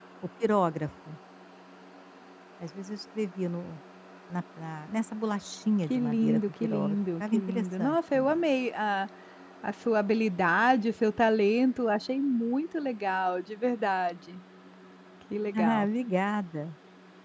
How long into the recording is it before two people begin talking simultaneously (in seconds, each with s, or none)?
5.9 s